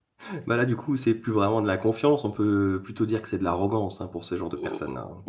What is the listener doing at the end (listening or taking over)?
taking over